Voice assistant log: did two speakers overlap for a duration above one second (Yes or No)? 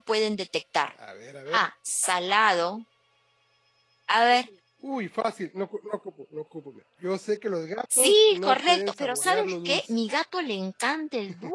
Yes